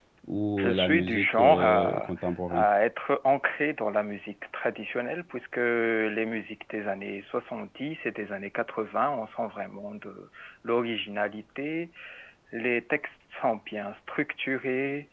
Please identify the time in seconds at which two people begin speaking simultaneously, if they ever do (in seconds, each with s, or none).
0.6 s